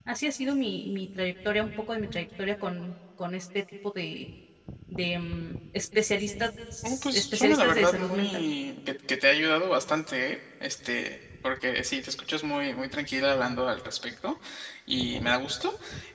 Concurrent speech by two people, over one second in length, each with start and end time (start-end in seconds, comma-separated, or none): 7.1-8.4